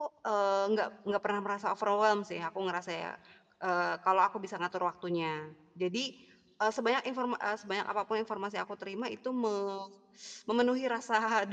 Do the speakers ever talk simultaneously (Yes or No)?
No